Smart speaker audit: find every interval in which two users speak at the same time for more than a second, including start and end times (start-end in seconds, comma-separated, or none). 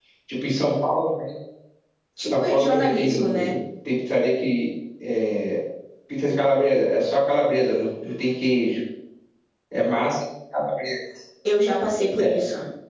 2.3-3.6